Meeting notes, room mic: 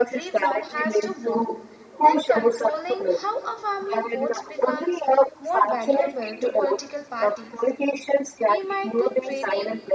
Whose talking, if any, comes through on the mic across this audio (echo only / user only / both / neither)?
both